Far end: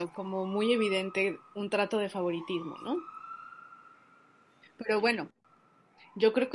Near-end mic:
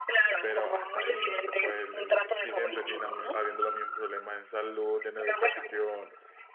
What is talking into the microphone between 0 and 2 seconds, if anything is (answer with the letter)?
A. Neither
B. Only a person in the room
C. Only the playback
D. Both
D